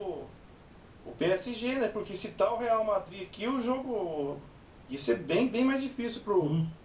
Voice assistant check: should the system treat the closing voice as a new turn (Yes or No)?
Yes